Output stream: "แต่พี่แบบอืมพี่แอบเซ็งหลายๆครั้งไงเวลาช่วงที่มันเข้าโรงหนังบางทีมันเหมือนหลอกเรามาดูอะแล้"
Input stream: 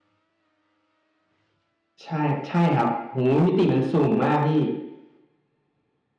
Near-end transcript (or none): ใช่ใช่ครับโหมิติมันสูงมากพี่